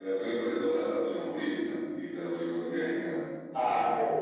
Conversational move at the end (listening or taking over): taking over